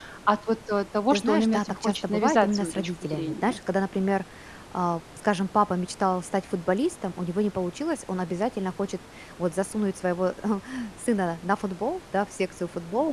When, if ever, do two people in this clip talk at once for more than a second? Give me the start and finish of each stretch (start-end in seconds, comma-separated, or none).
1.1-3.6